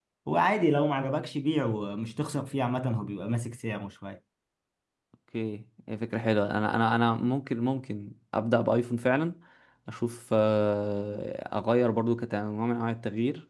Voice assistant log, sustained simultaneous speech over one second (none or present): none